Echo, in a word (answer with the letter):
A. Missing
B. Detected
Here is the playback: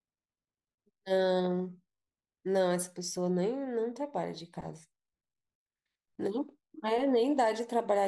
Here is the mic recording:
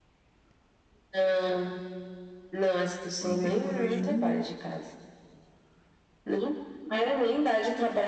B